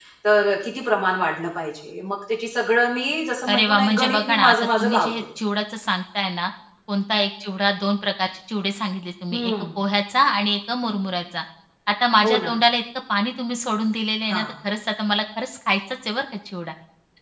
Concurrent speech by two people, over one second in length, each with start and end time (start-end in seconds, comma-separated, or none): 3.5-5.2